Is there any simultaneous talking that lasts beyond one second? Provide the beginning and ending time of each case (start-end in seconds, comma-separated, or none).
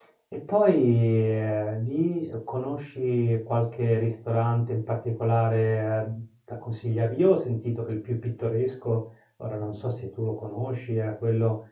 none